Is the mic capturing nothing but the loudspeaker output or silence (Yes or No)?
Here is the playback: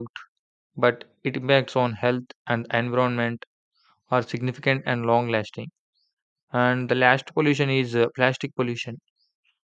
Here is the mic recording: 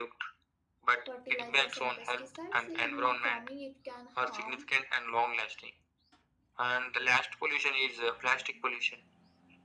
No